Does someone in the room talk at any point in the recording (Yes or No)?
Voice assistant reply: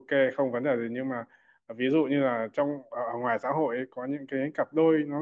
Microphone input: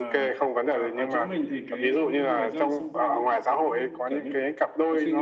Yes